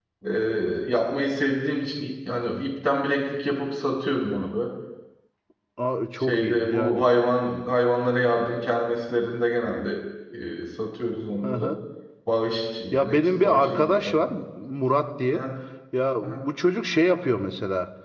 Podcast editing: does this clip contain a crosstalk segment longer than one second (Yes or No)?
Yes